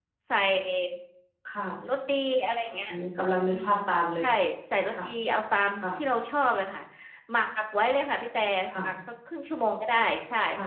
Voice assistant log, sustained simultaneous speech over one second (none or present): none